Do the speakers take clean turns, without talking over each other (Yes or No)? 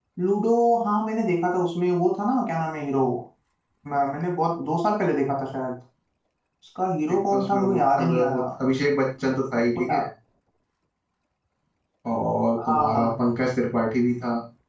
No